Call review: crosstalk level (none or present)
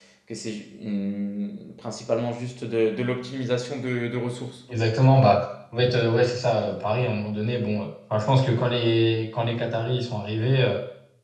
none